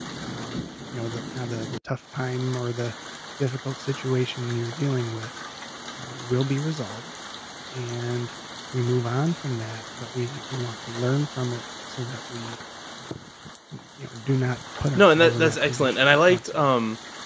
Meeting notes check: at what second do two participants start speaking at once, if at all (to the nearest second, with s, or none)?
15 s